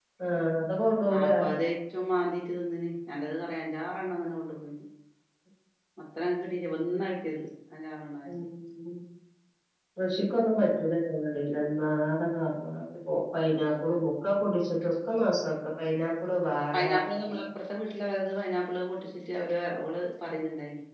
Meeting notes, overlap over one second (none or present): none